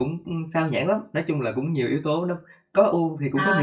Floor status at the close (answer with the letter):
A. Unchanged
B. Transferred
B